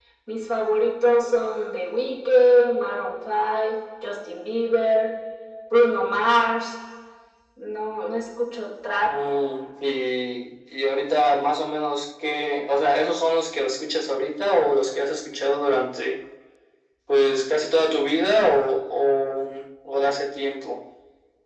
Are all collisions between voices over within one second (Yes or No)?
Yes